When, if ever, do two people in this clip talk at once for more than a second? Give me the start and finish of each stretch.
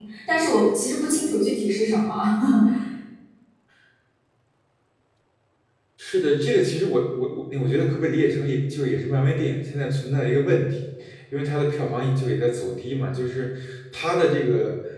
none

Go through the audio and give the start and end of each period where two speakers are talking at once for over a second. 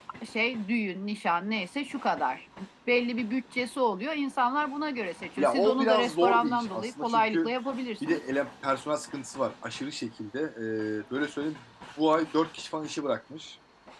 5.4-7.5

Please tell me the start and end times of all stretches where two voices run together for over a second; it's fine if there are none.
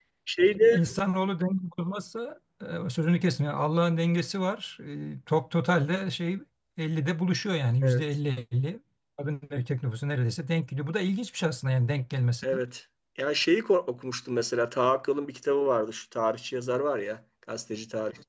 none

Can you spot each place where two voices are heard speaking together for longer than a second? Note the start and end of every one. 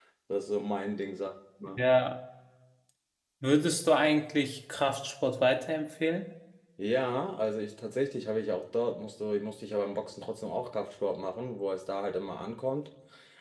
none

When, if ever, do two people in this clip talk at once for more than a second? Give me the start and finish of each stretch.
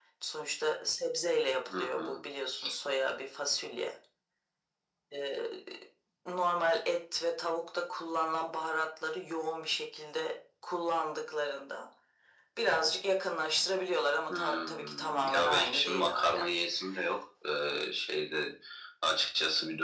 14.3-16.4

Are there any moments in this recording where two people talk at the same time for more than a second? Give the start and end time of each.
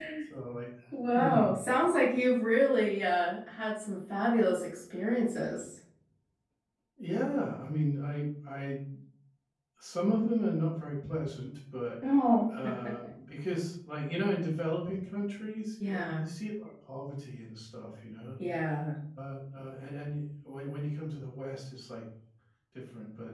none

